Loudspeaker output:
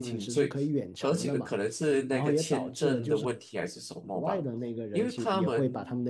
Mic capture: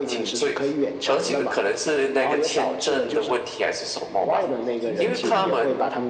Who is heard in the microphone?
both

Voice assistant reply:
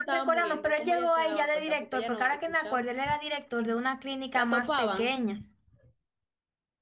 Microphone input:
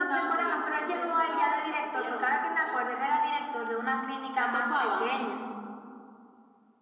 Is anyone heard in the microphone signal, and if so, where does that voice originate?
echo only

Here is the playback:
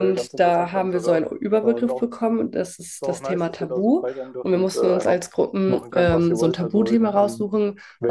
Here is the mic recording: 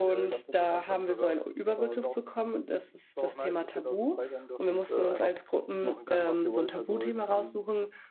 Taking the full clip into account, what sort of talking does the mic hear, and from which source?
echo only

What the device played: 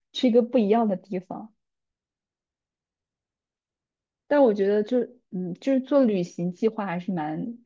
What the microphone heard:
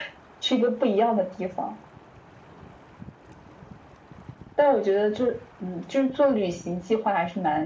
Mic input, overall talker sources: echo only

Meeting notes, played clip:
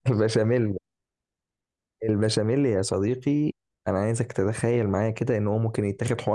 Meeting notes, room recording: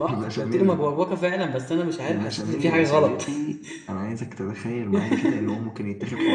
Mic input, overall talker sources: both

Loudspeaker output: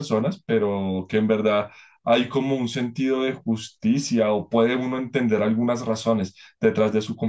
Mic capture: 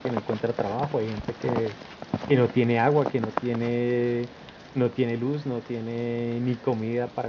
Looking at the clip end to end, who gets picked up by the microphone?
user only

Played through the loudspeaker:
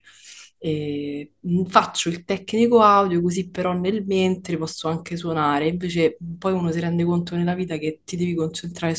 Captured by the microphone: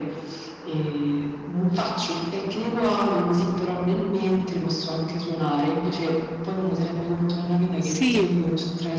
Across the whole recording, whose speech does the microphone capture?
both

